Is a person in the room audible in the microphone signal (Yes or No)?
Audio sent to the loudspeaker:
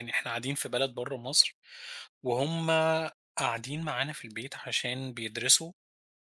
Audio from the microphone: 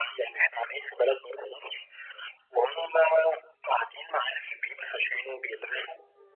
No